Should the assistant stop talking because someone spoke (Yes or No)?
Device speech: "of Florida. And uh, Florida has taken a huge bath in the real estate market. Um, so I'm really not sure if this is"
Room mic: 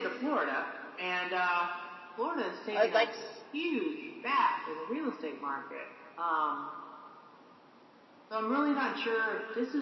Yes